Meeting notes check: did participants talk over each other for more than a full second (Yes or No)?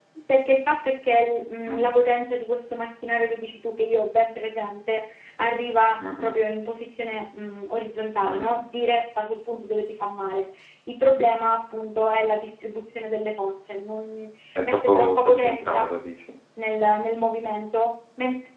Yes